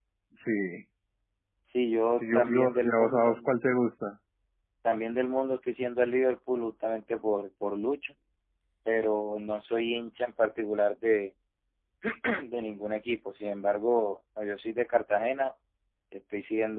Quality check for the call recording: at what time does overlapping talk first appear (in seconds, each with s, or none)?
2.2 s